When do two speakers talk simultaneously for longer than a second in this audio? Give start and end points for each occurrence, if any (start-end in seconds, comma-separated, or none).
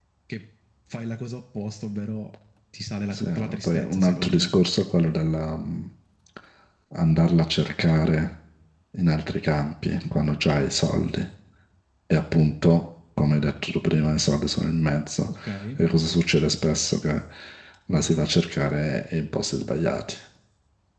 3.1-4.5